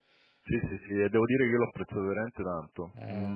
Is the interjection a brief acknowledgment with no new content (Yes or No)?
Yes